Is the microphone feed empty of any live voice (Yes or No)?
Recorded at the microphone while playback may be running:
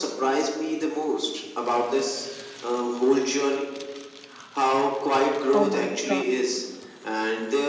No